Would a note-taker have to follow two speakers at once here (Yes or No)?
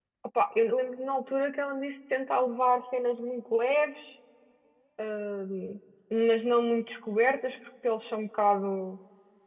No